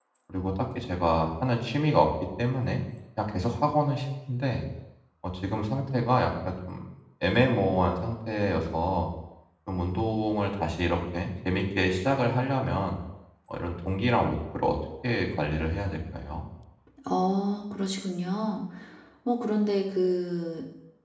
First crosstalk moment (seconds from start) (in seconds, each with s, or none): none